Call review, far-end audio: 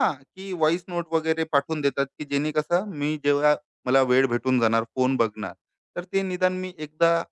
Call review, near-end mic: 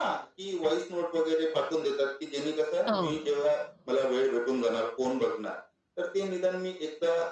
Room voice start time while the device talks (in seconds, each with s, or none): 2.9 s